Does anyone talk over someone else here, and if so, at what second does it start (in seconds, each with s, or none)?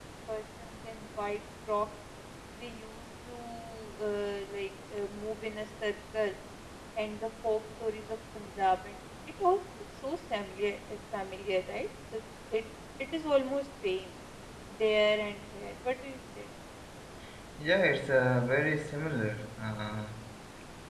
none